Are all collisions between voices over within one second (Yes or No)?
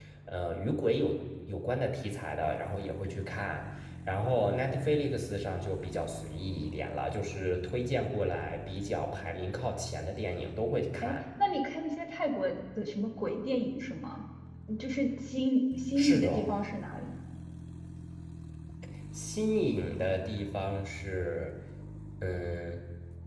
Yes